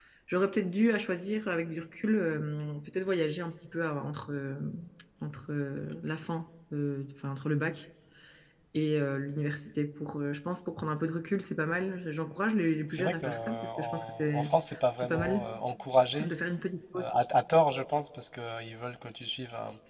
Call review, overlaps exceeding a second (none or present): present